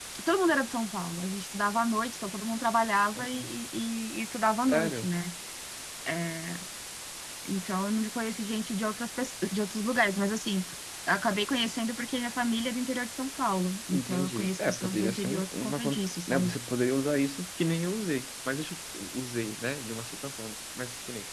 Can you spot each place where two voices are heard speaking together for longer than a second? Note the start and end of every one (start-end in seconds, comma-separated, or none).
13.9-16.6